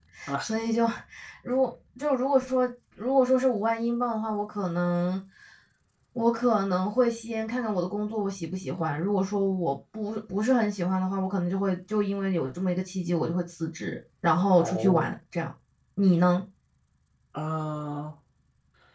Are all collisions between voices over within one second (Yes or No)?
Yes